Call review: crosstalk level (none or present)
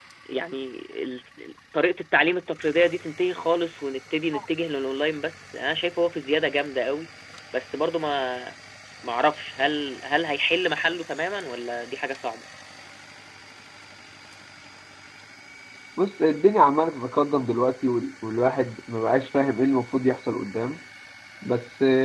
none